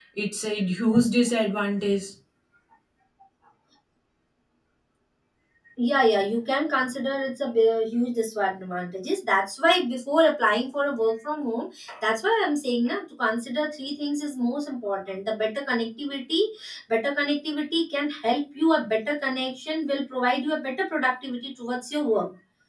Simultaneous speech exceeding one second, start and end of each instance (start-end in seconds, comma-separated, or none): none